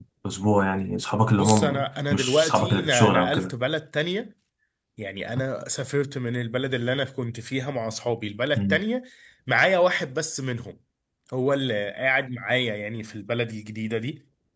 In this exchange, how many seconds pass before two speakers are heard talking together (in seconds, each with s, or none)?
1.4 s